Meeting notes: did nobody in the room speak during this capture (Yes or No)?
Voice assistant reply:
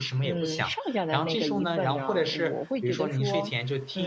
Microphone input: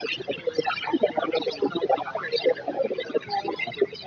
Yes